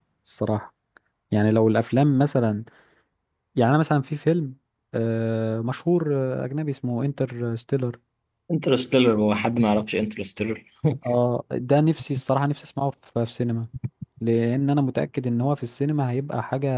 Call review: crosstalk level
none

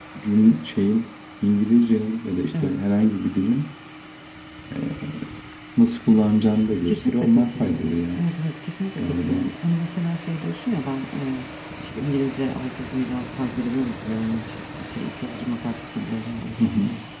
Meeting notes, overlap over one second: present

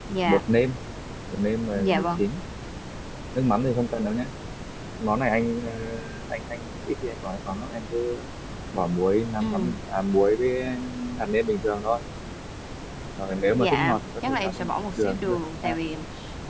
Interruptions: present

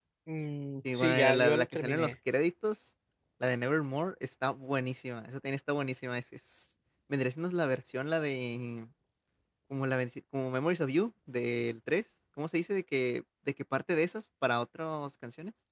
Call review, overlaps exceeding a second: present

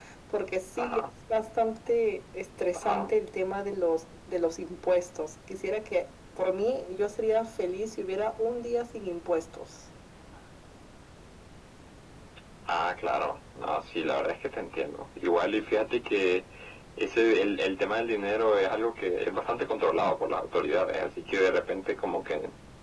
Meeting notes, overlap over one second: none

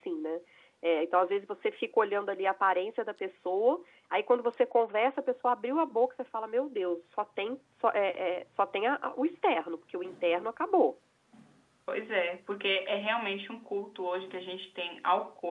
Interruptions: none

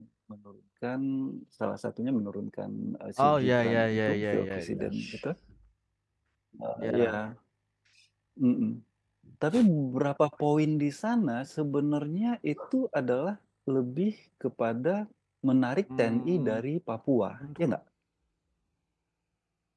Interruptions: present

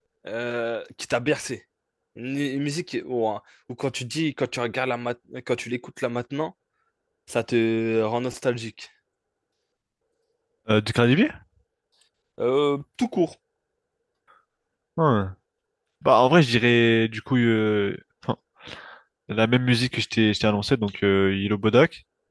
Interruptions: none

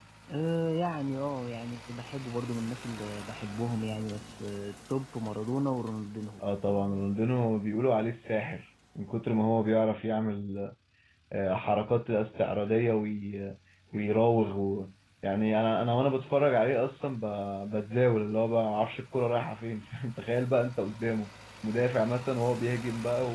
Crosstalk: none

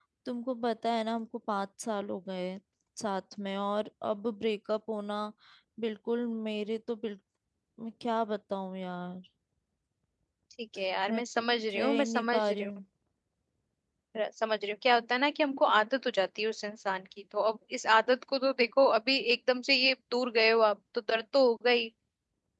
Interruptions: present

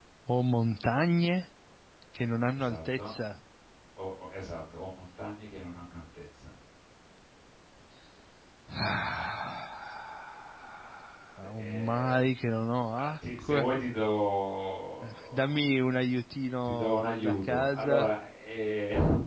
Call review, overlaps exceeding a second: present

